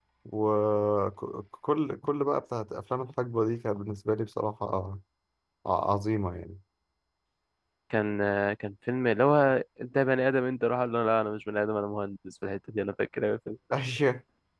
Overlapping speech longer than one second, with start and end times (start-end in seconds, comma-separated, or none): none